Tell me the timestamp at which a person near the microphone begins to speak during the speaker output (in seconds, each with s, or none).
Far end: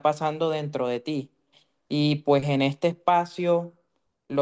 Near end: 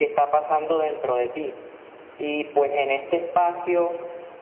none